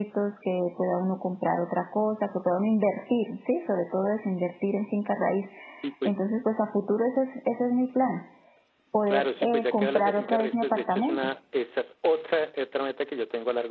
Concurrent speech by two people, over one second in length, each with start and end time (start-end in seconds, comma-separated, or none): 9.1-11.3